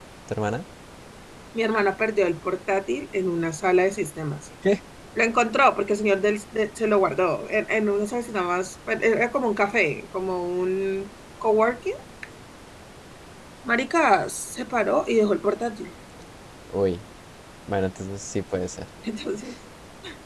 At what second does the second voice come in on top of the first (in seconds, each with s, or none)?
none